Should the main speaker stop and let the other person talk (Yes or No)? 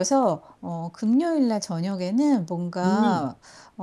No